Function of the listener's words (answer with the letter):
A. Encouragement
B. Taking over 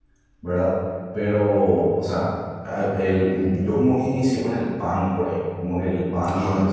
A